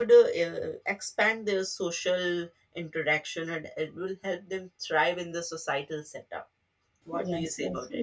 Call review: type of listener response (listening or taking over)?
taking over